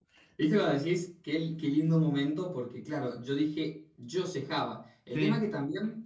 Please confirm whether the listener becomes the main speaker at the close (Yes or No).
No